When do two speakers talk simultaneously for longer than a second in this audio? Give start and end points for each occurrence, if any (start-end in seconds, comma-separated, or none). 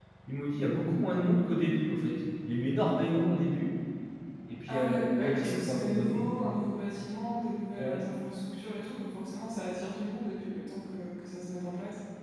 4.7-6.2